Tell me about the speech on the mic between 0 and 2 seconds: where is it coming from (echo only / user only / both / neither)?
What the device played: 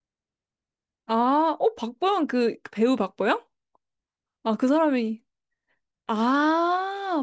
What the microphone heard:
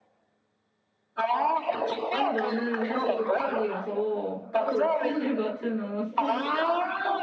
echo only